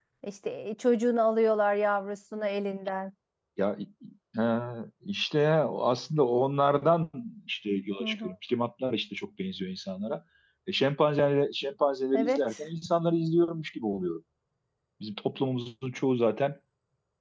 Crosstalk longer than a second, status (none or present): none